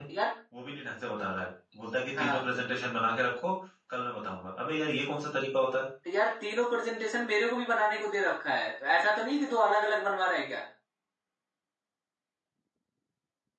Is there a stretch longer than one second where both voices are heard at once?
No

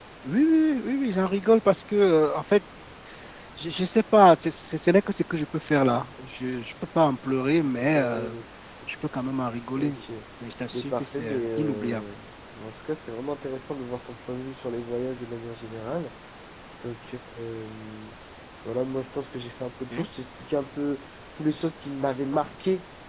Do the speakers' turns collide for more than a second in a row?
Yes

